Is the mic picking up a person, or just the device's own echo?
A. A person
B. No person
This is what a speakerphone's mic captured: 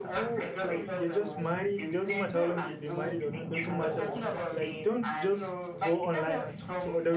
A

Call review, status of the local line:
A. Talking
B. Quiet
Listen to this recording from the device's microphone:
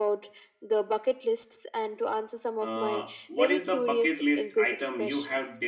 A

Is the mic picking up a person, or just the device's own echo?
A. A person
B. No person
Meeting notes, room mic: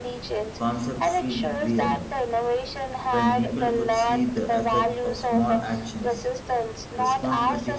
A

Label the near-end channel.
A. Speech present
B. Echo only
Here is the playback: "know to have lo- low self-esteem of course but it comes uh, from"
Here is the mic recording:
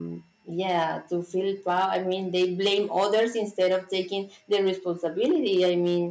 A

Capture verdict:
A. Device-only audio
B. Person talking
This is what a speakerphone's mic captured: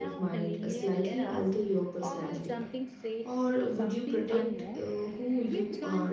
B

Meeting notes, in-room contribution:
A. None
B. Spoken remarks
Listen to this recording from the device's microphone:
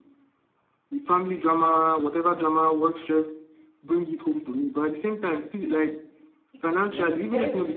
B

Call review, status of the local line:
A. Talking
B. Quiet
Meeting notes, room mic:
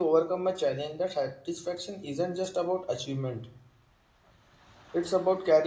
A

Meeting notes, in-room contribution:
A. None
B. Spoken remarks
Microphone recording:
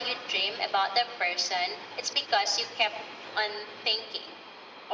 A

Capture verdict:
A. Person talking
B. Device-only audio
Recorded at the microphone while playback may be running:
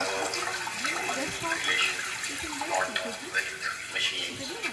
A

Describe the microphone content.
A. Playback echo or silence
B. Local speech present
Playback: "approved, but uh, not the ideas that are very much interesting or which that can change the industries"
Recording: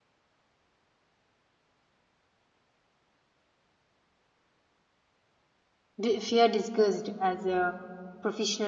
B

